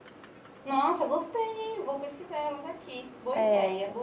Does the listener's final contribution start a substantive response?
Yes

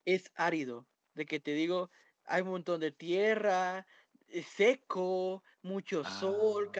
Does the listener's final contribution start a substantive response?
No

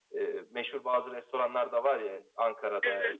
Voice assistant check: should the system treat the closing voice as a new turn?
No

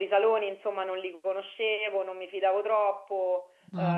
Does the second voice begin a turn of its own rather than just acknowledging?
No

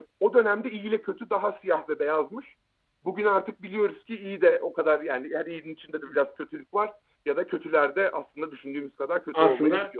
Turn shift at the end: Yes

